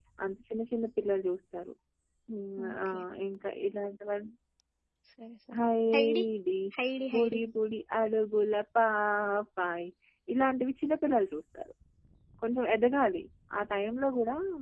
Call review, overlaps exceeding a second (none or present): none